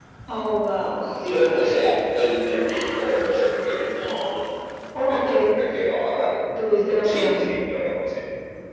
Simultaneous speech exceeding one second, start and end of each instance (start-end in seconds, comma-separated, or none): none